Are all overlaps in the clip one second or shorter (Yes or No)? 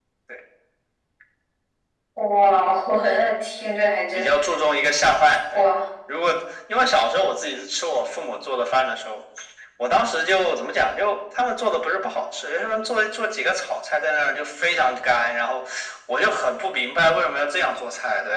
Yes